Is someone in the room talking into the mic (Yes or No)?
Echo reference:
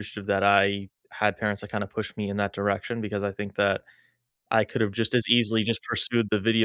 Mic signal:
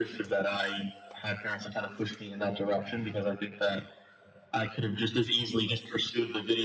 No